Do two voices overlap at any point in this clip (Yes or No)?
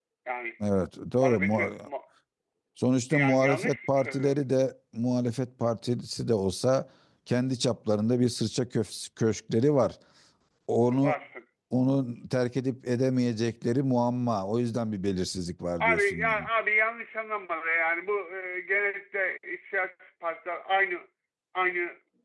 Yes